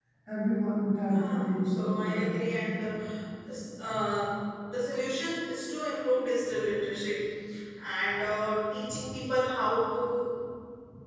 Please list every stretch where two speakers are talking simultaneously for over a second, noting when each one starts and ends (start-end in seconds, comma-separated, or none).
1.1-2.4